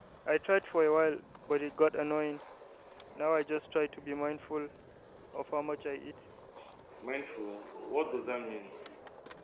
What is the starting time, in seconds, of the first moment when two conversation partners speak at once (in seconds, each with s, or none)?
none